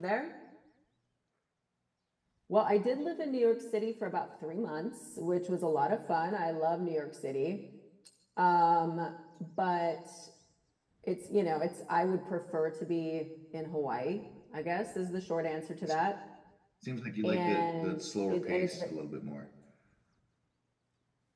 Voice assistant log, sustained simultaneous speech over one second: present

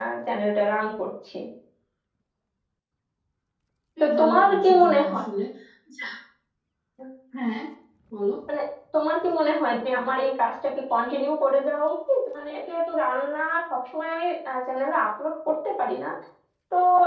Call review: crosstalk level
present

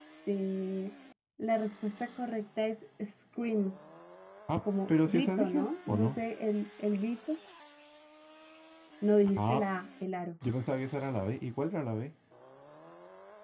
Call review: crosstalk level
present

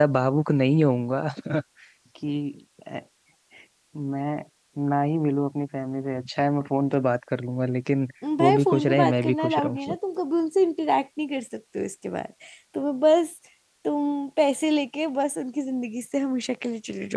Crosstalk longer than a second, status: present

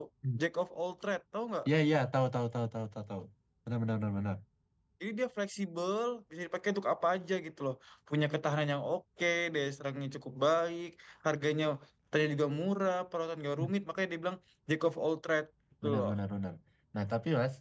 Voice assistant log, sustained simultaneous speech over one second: none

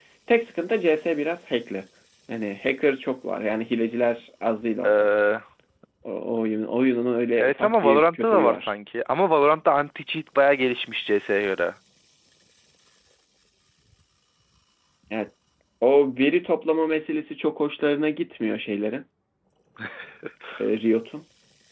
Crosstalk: present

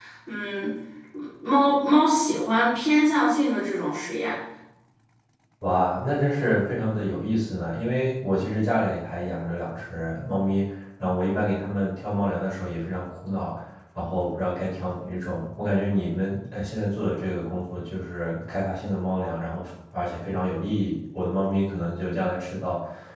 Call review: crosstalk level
none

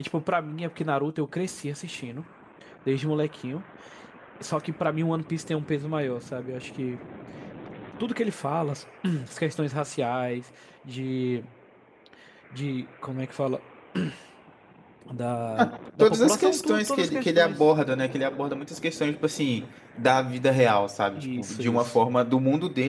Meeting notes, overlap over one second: present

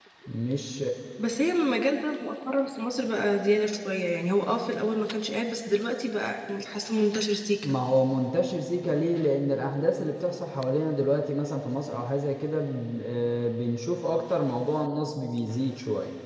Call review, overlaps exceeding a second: none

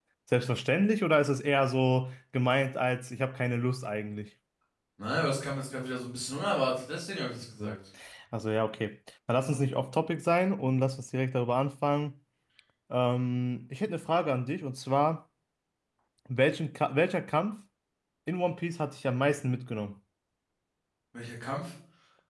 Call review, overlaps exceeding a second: none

